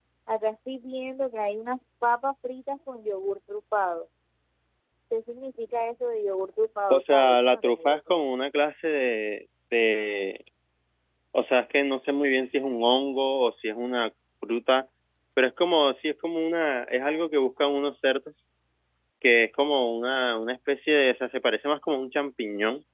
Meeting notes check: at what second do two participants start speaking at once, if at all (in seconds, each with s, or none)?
6.9 s